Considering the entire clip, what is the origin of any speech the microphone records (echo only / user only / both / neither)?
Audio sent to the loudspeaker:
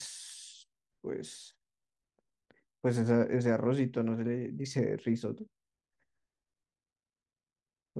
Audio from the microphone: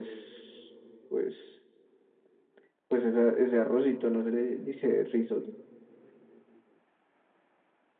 echo only